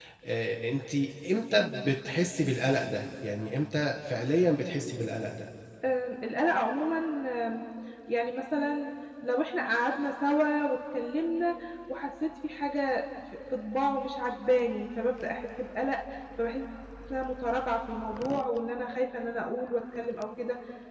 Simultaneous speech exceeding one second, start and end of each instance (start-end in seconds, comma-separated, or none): none